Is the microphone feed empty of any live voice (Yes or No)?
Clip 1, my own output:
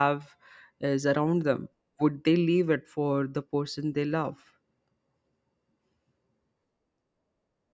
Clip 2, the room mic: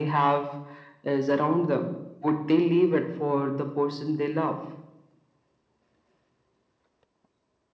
Yes